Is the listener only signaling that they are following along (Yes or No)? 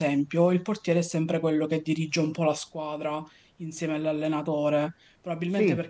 Yes